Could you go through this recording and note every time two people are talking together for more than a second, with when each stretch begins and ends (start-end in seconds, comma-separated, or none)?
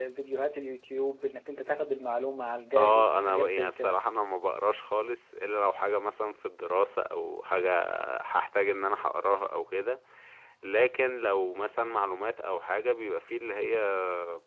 2.8-4.0